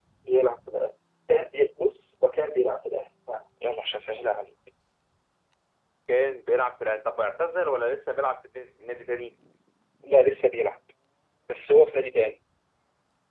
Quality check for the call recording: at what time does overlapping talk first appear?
none

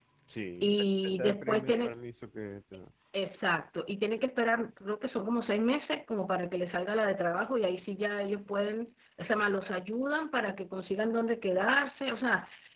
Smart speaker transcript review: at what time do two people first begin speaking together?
1 s

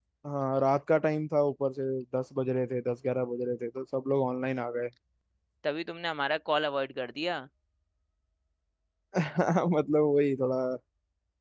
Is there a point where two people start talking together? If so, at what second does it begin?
none

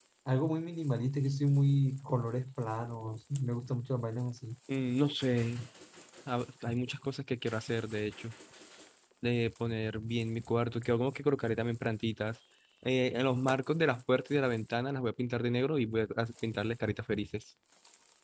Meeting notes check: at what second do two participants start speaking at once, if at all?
none

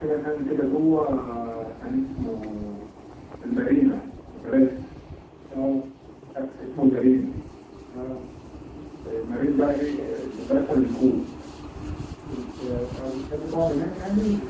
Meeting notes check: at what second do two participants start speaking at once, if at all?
none

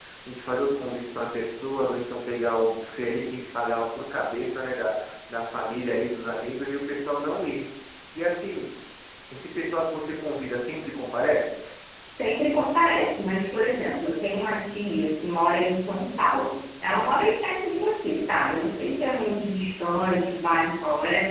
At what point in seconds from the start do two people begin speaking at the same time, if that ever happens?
none

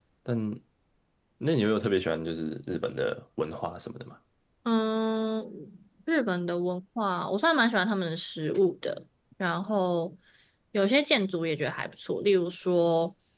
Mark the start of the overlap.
none

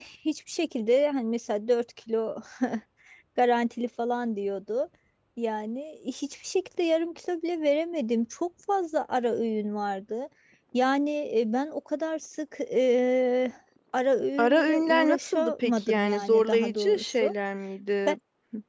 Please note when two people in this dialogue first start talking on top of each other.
14 s

